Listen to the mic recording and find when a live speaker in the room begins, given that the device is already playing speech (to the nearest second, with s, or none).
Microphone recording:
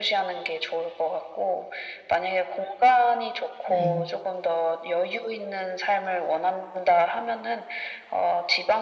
4 s